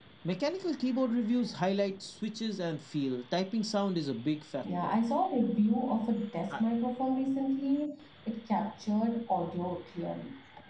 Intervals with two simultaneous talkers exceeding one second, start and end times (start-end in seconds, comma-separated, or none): none